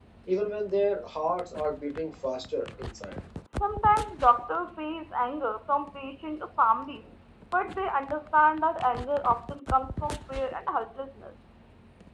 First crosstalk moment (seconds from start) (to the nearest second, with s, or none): none